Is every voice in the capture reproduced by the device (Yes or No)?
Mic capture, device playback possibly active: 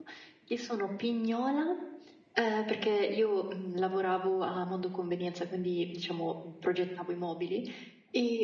No